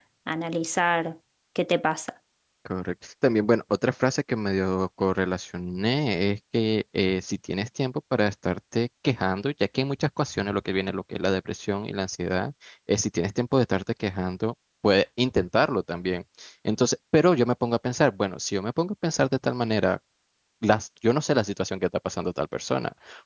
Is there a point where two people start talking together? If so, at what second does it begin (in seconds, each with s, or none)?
none